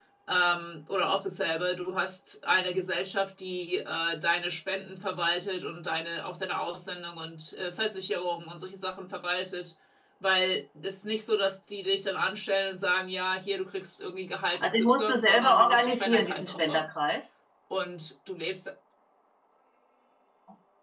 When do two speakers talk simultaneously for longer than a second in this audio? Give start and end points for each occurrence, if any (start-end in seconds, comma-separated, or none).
14.5-16.9